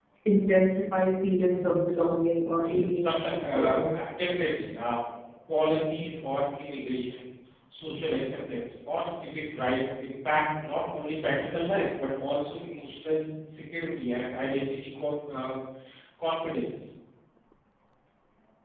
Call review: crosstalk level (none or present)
present